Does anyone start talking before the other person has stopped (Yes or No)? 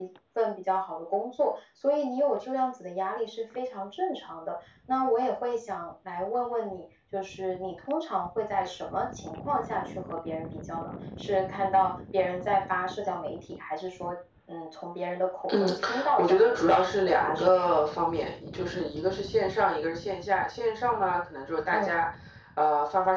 Yes